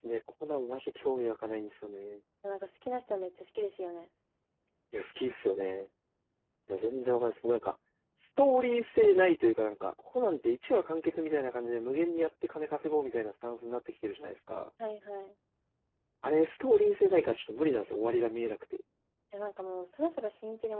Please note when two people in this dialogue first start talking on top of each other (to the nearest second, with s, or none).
none